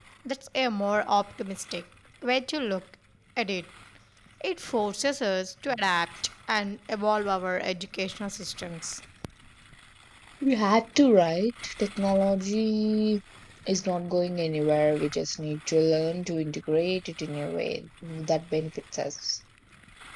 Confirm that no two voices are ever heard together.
Yes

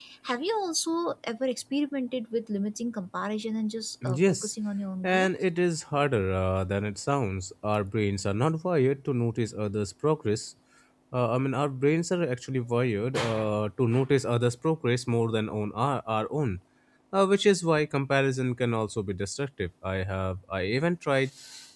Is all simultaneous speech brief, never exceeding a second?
Yes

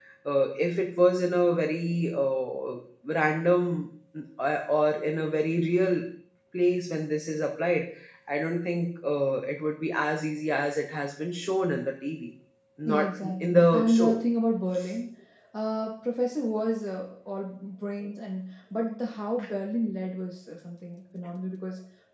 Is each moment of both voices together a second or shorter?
No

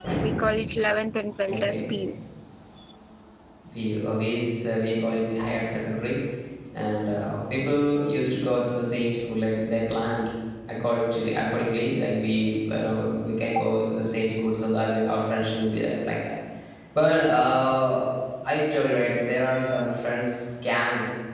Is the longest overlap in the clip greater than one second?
No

